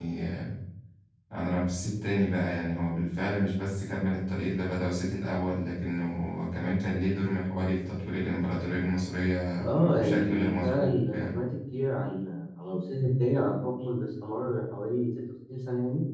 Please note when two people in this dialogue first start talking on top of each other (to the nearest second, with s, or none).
10 s